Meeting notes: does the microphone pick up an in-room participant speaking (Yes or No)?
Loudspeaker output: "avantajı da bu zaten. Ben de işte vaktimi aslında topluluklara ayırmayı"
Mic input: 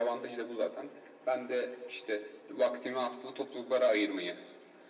No